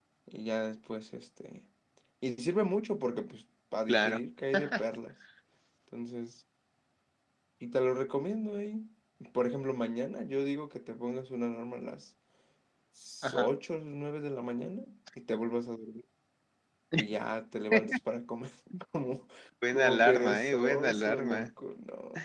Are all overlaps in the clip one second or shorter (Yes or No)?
No